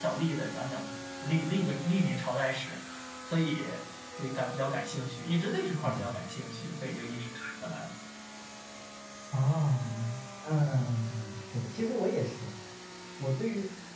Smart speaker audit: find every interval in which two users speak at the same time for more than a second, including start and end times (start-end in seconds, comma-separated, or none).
none